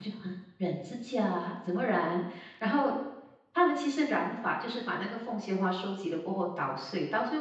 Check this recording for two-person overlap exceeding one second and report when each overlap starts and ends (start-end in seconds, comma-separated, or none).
none